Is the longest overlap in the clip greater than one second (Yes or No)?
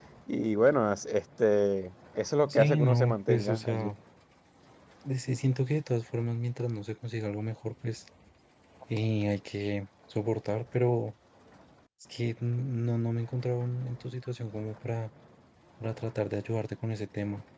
Yes